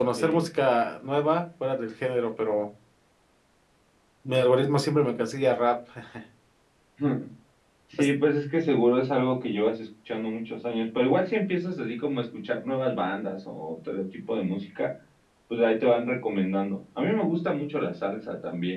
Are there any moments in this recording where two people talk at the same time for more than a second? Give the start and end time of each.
none

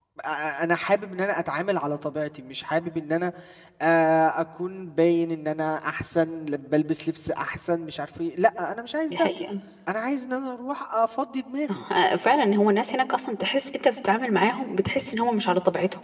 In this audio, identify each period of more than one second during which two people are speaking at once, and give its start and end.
none

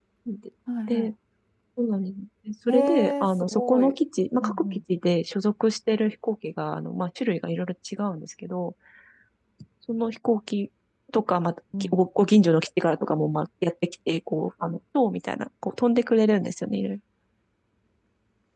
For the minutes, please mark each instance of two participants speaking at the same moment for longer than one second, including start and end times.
2.7-4.0

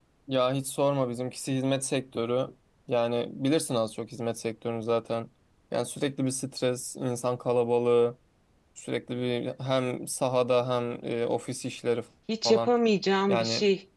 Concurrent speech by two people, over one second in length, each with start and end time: none

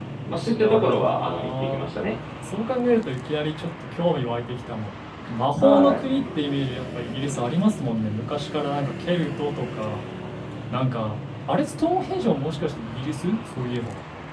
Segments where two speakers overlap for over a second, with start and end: 0.5-1.8

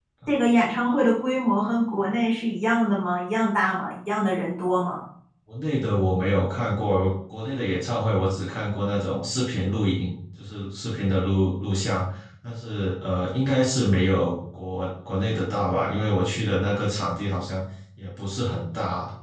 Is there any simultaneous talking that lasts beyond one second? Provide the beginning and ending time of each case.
none

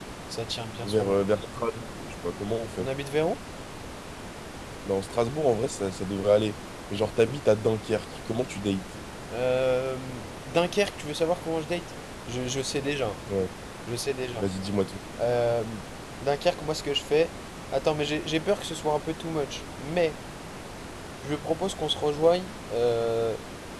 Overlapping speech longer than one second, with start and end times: none

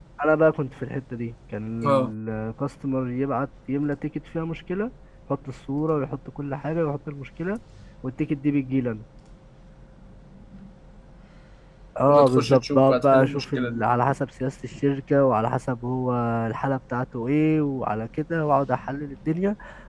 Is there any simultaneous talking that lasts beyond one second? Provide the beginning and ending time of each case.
12.1-13.8

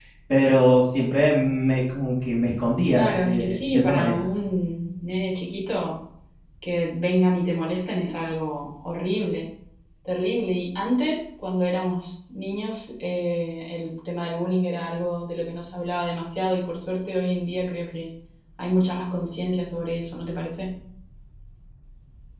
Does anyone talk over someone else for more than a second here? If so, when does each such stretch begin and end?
2.9-4.2

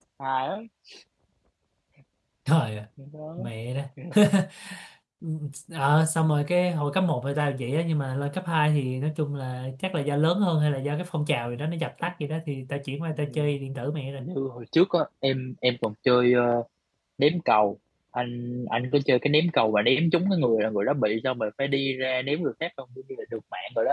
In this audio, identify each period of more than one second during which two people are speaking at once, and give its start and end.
none

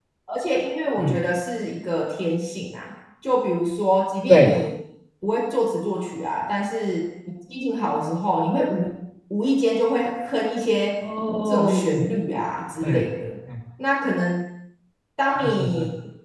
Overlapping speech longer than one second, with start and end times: none

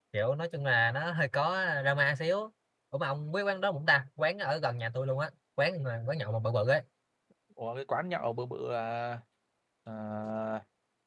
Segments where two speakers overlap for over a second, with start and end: none

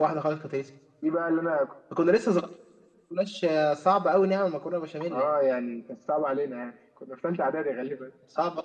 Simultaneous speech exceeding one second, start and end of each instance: none

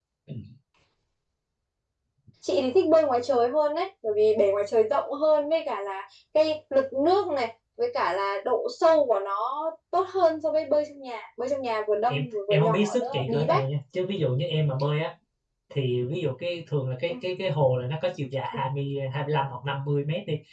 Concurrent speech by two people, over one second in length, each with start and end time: 12.1-13.6

